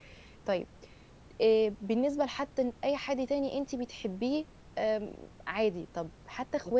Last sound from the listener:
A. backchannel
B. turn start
A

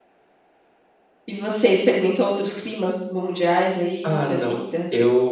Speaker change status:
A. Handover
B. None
A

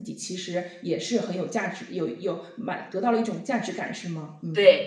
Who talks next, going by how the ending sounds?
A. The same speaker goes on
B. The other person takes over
B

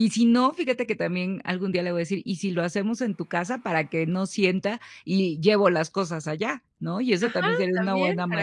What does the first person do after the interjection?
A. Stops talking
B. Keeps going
A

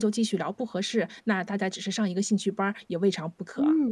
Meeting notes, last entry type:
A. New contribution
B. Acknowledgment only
A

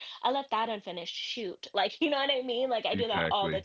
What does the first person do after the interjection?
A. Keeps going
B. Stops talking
A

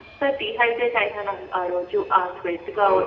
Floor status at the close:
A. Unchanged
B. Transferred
B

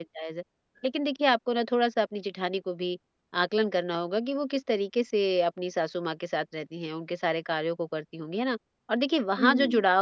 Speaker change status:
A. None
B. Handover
A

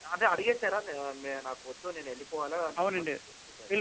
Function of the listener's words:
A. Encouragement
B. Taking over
B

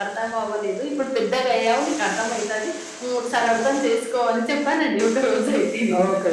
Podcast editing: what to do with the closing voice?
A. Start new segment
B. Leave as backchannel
A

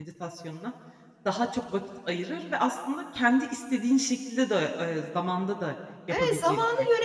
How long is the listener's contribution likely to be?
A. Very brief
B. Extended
B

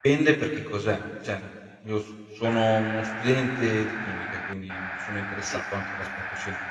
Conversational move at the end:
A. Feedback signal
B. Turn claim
A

